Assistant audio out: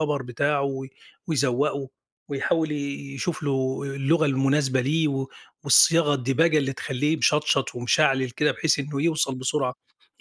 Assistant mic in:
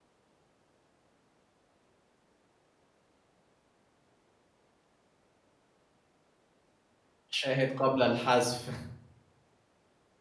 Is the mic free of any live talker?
No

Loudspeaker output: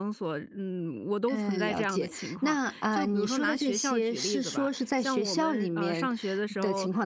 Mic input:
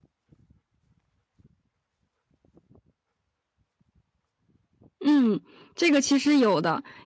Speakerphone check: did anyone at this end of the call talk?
Yes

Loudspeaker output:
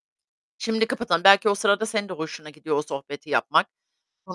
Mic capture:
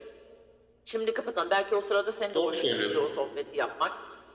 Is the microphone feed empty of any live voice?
No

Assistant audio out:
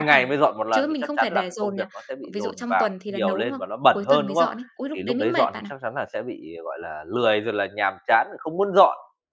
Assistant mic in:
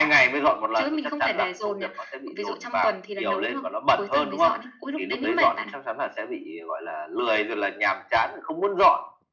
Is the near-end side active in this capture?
No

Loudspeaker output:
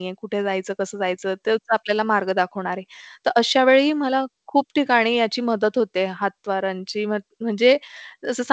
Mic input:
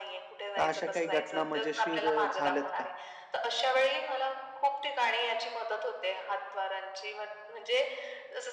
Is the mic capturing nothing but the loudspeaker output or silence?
No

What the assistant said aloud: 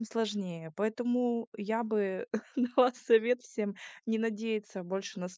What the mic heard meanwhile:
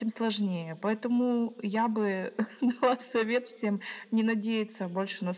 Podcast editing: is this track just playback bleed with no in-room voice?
Yes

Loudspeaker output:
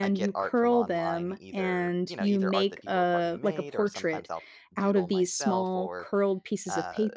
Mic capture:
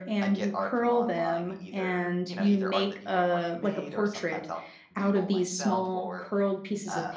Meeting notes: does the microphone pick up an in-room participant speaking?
No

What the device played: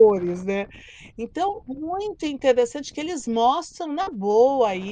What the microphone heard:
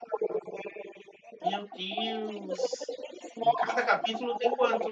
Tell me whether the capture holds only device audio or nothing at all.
No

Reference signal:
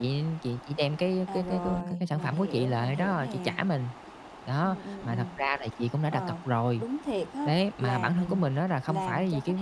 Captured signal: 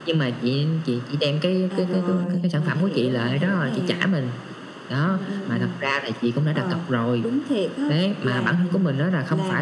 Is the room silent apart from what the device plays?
Yes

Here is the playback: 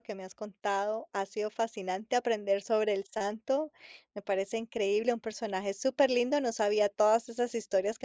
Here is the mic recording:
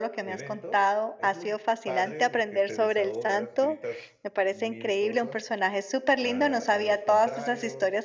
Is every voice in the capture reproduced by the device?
No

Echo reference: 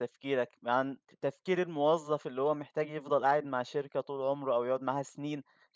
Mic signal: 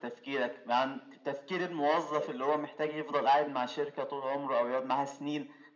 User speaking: Yes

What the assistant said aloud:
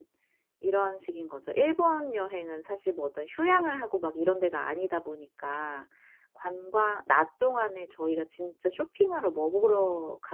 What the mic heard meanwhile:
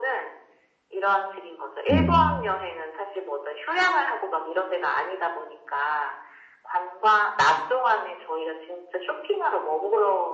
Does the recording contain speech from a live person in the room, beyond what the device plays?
Yes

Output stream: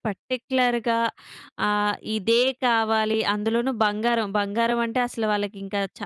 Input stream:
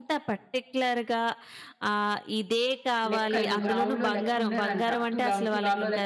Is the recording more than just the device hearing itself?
Yes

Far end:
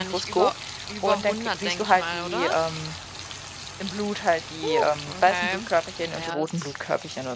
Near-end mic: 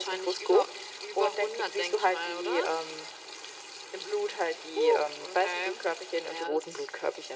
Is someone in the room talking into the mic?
No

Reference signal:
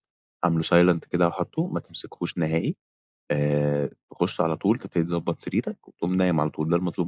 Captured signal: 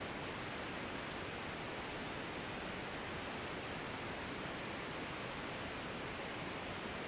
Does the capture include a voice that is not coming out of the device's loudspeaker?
No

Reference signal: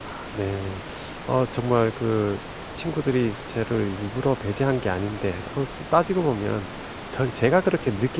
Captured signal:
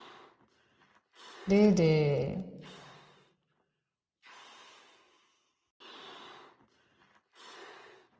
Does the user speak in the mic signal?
Yes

